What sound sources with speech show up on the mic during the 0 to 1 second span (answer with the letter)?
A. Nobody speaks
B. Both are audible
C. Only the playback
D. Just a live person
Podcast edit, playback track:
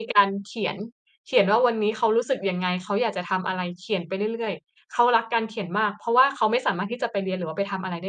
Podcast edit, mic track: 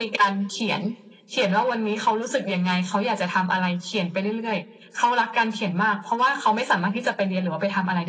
C